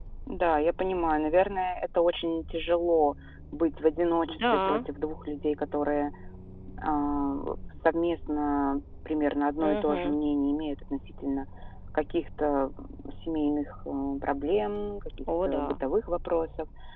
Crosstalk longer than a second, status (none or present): none